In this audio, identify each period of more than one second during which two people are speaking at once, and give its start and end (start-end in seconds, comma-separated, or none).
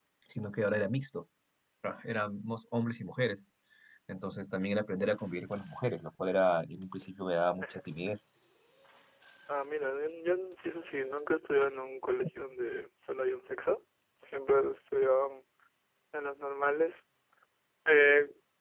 none